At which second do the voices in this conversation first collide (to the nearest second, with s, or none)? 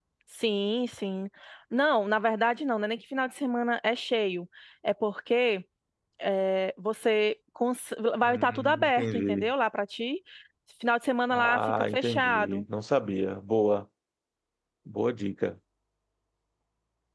8 s